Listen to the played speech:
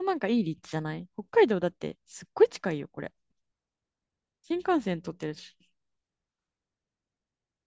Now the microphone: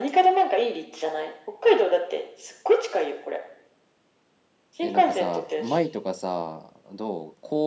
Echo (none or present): present